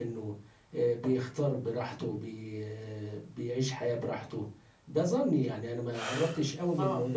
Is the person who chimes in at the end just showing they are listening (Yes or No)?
Yes